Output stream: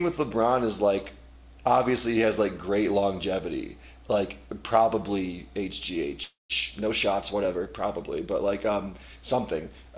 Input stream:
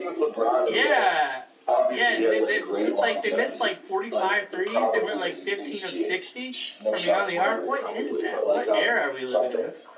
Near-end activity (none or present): present